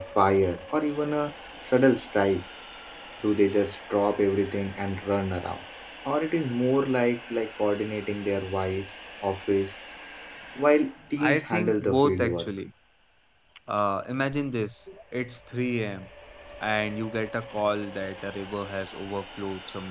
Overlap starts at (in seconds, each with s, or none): 11.2 s